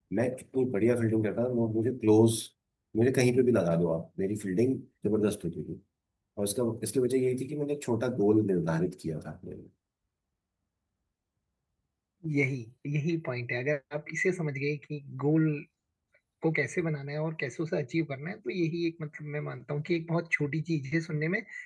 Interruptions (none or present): none